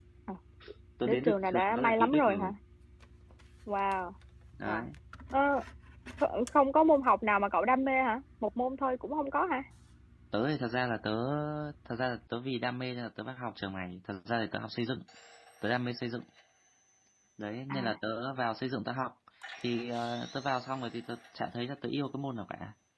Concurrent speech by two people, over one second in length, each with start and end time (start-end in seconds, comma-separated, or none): 1.0-2.5